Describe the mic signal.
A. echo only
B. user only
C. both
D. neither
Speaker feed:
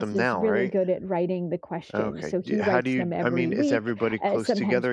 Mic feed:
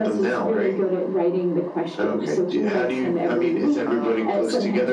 C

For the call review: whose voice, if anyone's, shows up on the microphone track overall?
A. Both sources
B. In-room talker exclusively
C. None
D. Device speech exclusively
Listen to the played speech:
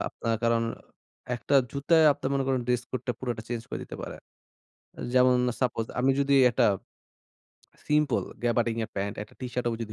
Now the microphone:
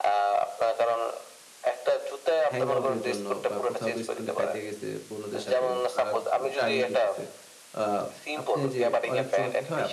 A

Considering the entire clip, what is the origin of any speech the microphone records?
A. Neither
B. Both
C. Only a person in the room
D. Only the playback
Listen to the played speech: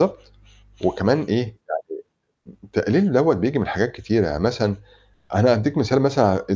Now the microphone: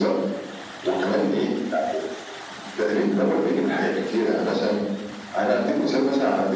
D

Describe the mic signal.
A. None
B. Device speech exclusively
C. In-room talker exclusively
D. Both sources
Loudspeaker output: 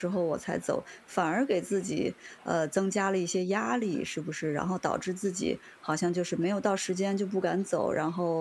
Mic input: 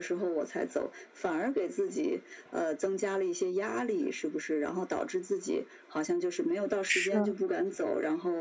D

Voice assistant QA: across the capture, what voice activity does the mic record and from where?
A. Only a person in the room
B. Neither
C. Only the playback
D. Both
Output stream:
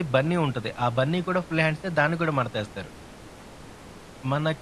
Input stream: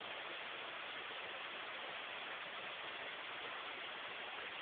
B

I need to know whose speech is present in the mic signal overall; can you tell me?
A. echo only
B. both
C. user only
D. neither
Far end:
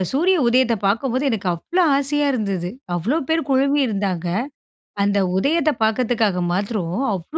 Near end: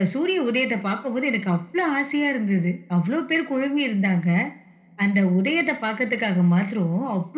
A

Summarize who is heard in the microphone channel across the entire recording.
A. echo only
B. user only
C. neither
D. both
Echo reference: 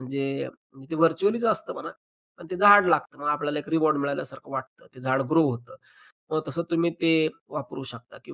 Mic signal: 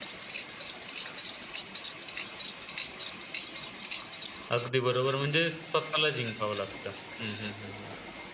B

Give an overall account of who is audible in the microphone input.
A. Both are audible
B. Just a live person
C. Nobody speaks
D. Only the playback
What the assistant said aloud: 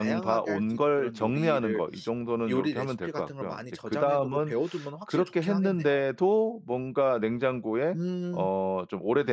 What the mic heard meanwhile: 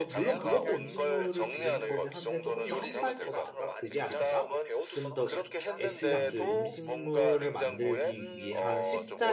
A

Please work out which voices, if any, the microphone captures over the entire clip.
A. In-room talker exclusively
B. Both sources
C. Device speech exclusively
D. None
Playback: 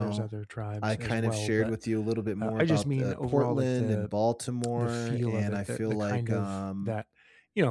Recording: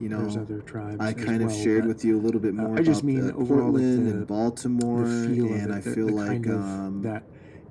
C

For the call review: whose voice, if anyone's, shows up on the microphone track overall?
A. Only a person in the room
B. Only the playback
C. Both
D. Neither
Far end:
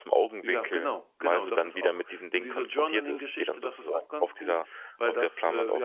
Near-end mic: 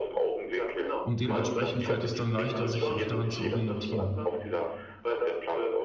C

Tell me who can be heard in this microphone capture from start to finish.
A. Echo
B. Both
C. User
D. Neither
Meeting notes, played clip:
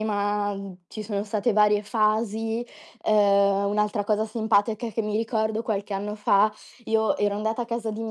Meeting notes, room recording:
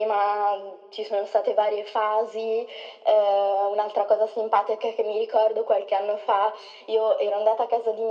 A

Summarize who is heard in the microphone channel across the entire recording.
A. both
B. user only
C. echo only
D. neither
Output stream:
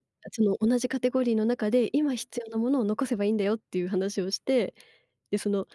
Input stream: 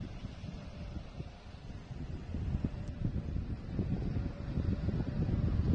D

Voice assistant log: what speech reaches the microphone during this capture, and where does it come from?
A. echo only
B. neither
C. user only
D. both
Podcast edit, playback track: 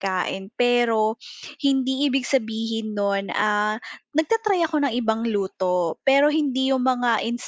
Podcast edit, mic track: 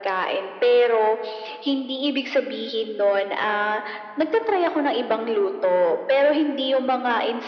A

